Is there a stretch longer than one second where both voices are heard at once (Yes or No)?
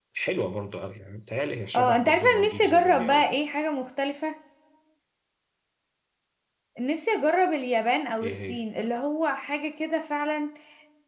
Yes